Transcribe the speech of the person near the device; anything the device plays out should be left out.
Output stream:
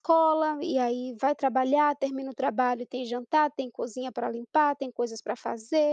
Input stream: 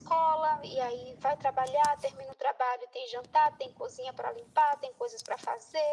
none

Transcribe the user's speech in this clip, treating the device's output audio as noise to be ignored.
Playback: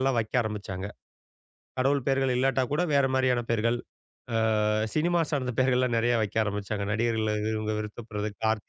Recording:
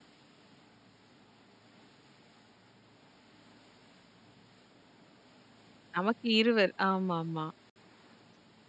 நமக்கு இருவர். ஆமாமா.

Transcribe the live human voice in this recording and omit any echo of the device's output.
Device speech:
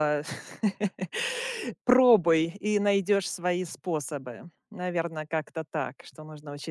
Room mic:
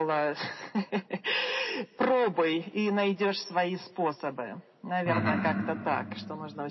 Мгм.

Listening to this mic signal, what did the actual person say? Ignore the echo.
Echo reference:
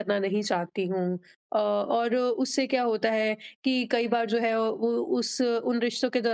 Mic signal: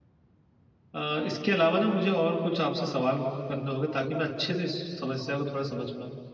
अ, इसके अलावा ना मुझे और कुछ आपसे सवाल करने होंगे ताकि मैं अच्छे से इस समस्या को थोड़ा समझ पाऊँ

